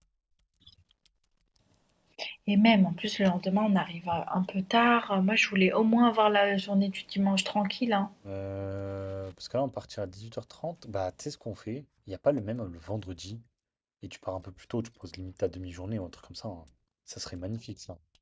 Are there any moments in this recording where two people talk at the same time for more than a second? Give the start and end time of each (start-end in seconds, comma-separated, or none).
none